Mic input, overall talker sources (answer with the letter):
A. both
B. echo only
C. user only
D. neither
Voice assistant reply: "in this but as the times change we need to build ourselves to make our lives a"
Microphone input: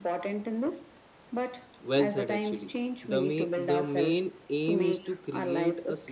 A